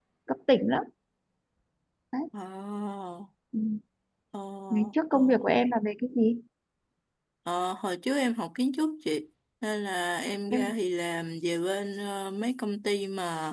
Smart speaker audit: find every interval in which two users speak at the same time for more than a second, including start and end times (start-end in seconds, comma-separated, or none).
none